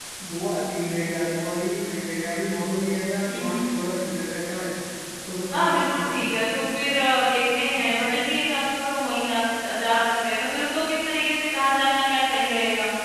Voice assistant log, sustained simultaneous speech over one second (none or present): present